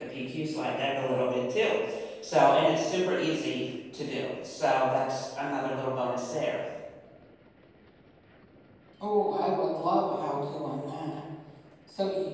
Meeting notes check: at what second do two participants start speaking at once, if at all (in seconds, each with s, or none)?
none